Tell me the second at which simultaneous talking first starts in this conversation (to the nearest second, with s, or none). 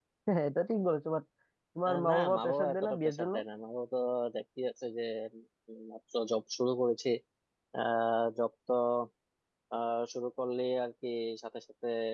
2 s